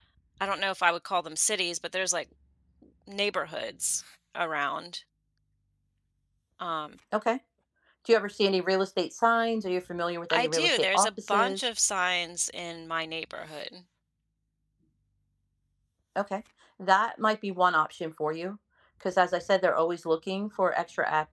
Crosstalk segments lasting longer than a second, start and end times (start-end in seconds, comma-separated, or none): 10.3-11.6